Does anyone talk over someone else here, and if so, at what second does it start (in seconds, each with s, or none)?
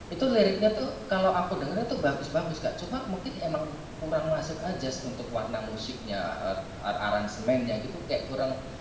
none